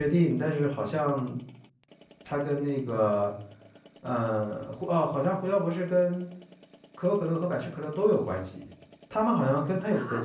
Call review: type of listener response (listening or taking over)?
listening